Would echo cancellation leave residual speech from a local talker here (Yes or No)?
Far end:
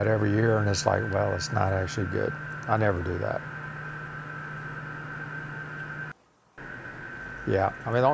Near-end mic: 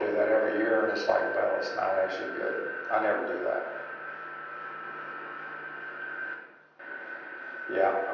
No